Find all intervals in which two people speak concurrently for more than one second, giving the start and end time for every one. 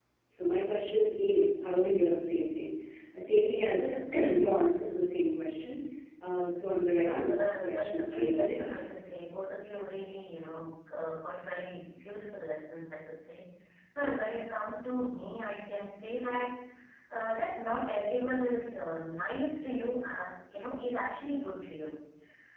7.0-8.7

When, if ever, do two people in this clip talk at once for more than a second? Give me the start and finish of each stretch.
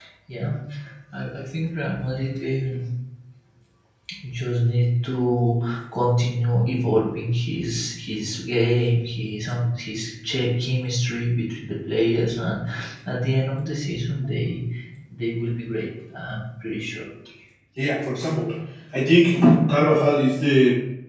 none

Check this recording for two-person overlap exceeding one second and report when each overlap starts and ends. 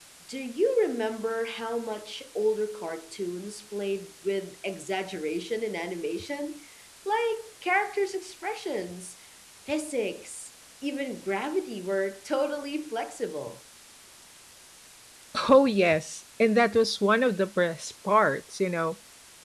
none

